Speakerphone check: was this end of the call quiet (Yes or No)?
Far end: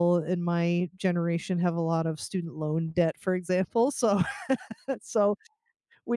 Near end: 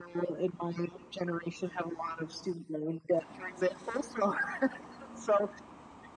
Yes